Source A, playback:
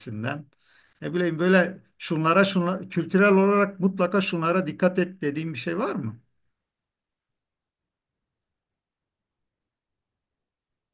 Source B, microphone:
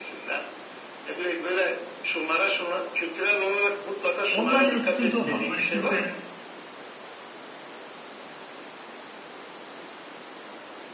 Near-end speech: present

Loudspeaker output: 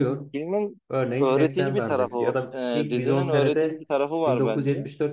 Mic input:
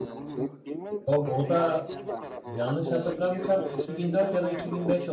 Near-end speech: present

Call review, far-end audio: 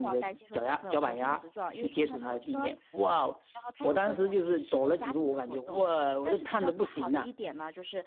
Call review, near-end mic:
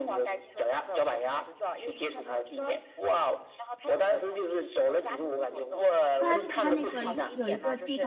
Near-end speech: present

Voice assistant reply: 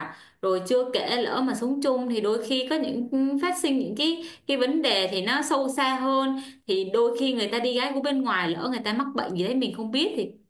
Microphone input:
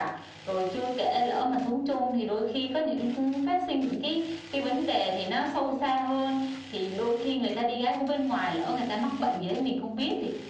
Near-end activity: none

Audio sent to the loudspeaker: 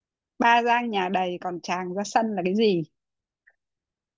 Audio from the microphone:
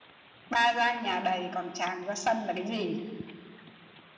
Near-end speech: none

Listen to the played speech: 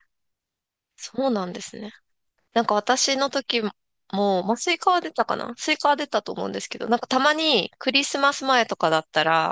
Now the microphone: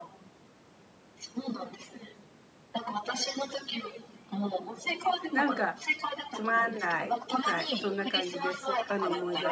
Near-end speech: present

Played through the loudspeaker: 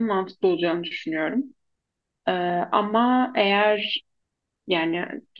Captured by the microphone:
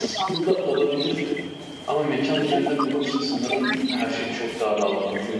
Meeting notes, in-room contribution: present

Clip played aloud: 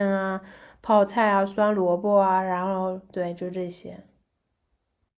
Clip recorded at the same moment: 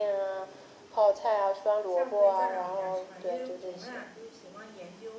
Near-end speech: present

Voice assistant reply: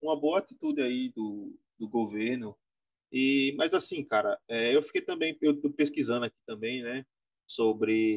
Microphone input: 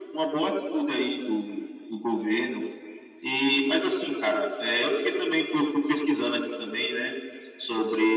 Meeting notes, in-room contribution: none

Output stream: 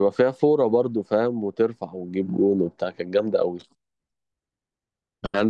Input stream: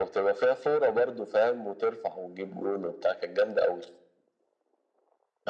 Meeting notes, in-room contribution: none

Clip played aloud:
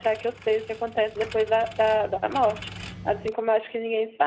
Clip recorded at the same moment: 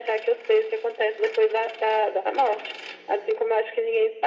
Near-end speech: none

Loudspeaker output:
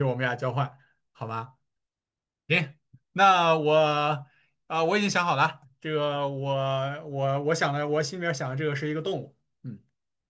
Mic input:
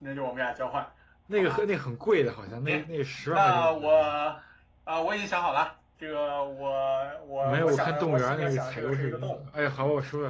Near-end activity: present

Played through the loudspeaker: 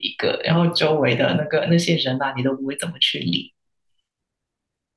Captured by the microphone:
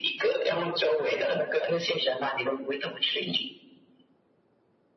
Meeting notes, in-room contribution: none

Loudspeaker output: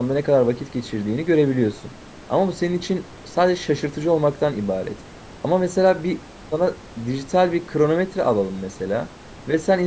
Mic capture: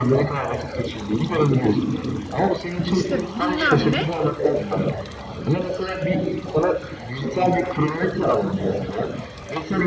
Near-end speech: present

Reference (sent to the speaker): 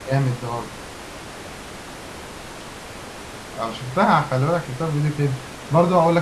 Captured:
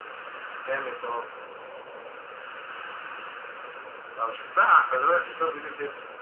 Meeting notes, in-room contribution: none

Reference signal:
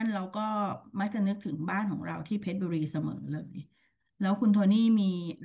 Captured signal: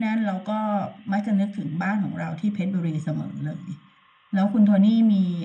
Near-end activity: none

